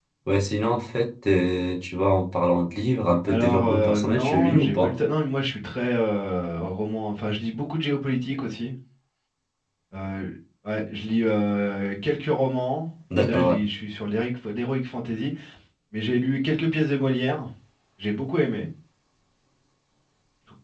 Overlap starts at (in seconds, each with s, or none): 3.3 s